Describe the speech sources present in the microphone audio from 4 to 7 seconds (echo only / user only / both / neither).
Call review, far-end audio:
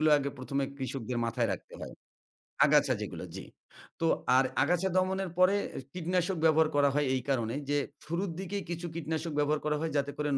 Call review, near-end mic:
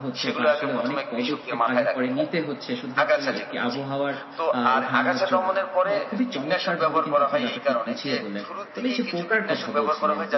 both